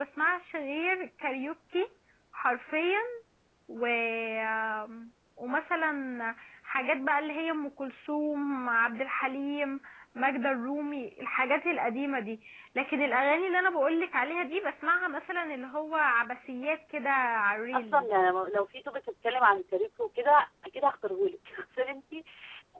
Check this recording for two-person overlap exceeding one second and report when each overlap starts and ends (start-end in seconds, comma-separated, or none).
none